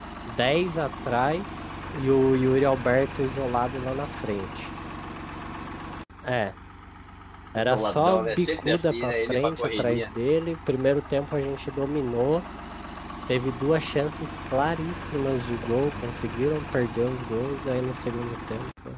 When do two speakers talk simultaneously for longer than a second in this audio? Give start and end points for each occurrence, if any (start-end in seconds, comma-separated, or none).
7.6-10.1